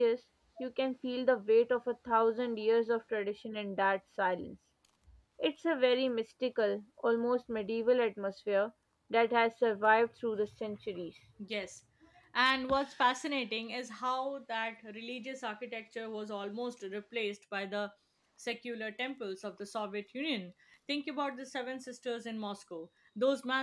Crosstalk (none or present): none